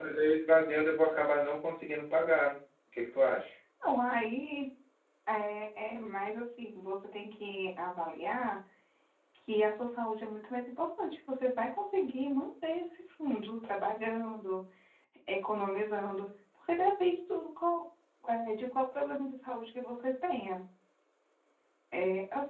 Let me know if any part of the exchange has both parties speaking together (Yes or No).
No